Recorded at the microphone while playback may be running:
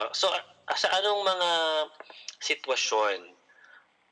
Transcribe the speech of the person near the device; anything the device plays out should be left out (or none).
none